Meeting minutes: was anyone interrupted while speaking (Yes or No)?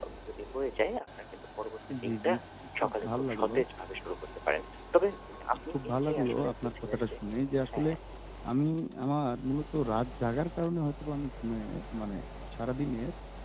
Yes